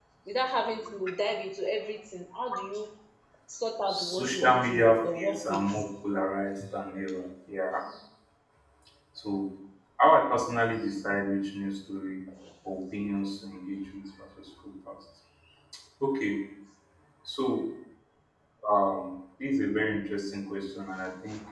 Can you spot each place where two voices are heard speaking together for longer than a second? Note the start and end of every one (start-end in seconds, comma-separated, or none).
3.9-5.7